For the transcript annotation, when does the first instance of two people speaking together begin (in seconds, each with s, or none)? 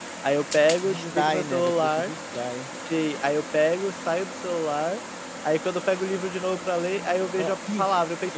0.8 s